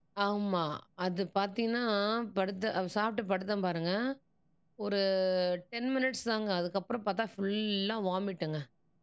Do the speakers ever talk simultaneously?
No

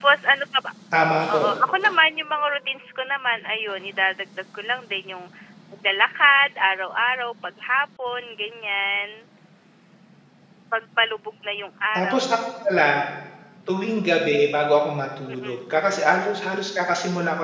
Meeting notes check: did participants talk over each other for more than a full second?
No

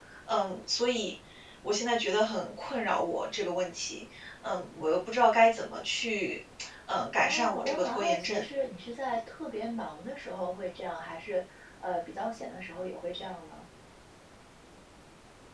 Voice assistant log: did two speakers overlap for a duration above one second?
Yes, from 7.2 s

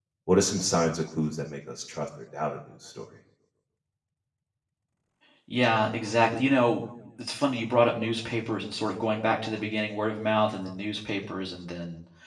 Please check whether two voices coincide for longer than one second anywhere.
No

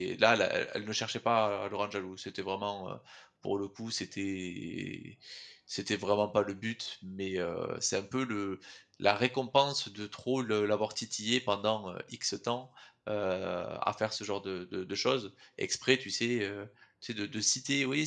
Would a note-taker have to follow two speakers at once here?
No

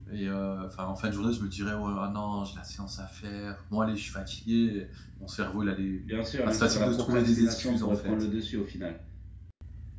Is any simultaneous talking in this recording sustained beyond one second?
Yes, from 6.4 s

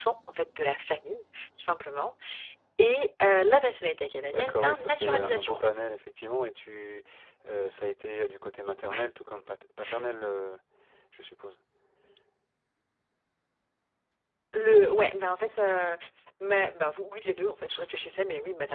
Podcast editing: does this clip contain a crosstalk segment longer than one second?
Yes, from 4.3 s

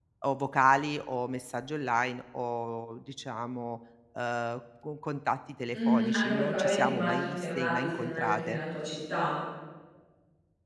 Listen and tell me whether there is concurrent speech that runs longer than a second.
Yes, from 5.7 s

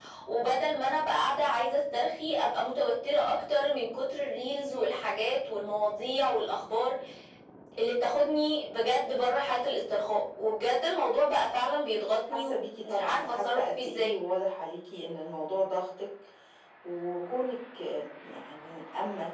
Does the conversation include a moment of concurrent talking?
Yes, from 12.3 s

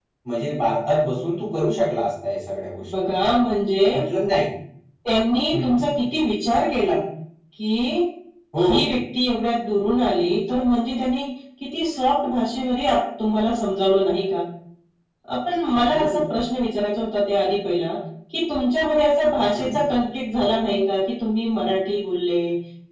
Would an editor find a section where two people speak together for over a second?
No

